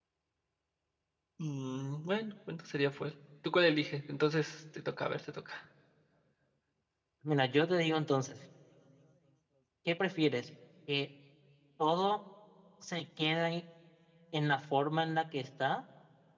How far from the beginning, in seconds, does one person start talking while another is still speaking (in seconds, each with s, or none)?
none